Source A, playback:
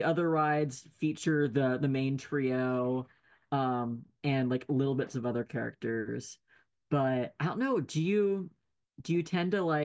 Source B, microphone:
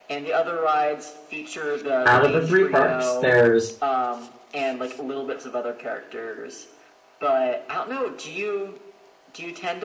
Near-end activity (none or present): present